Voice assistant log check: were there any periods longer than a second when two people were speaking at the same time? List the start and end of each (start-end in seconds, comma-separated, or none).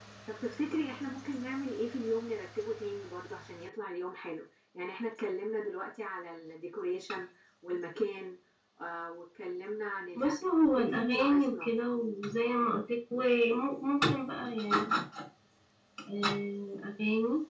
10.2-11.7